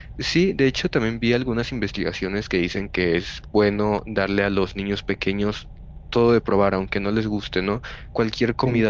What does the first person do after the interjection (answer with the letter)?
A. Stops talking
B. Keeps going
B